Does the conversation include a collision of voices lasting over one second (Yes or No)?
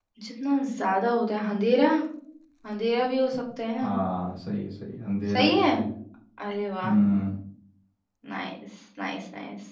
No